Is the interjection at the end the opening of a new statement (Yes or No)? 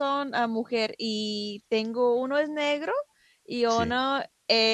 No